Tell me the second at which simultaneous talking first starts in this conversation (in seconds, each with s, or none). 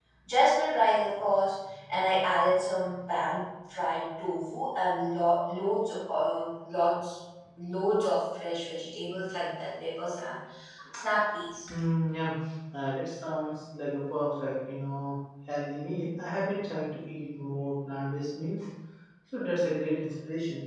none